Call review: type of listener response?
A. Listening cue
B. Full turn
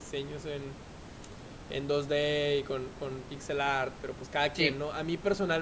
A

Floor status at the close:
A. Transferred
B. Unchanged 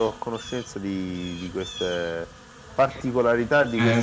A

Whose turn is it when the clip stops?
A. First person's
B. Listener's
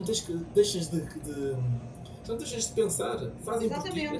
B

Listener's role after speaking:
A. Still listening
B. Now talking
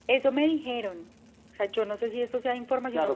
B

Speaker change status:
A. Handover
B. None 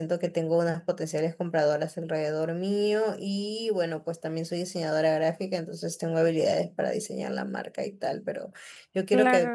B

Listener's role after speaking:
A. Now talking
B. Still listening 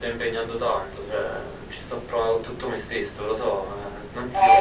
A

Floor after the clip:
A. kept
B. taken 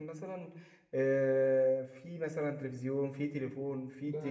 A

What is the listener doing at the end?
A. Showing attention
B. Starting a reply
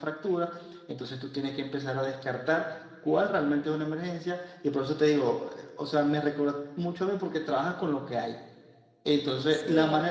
A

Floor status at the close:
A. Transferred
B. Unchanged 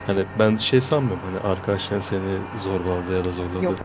B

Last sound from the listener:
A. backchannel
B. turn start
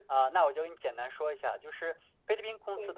A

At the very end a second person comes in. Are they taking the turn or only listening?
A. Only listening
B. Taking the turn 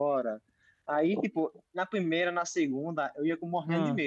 A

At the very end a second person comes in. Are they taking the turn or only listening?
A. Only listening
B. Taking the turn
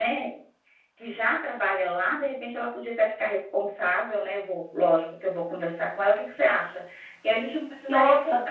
A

